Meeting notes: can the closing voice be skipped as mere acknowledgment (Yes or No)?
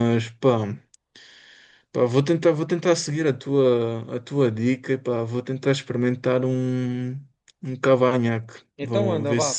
No